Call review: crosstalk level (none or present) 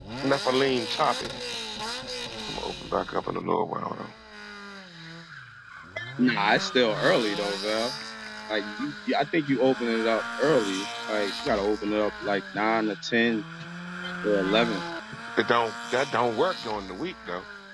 none